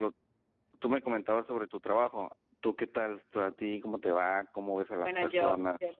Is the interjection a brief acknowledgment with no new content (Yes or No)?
No